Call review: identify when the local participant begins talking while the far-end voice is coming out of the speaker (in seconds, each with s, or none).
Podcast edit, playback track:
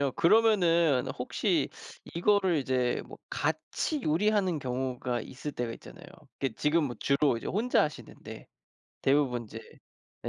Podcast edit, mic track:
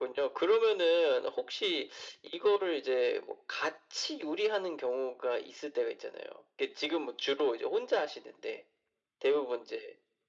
none